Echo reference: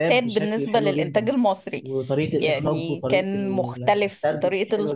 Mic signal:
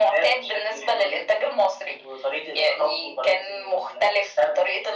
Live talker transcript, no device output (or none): none